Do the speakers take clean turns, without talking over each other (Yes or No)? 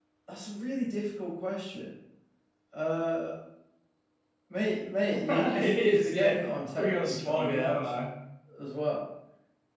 No